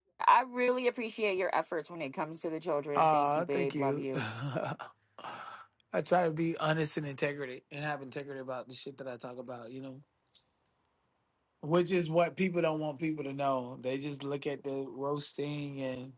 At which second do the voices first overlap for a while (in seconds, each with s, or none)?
3.0 s